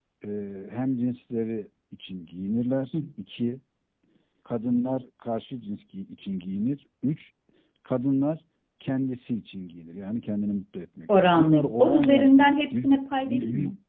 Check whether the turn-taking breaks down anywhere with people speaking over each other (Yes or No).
Yes